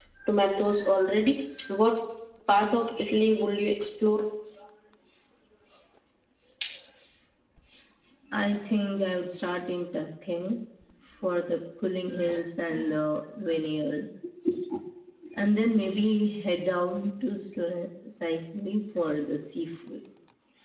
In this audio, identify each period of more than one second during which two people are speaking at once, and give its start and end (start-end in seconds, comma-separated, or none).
none